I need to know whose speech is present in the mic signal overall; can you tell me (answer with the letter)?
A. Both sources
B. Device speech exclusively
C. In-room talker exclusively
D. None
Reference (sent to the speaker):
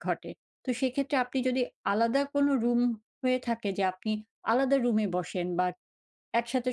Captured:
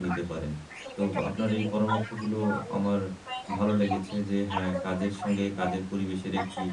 A